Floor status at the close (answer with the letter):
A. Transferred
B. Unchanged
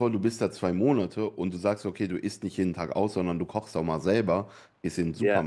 B